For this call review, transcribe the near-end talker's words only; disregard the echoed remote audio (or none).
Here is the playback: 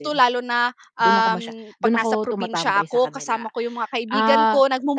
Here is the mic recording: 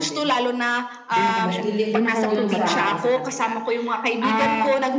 naglilift yun sa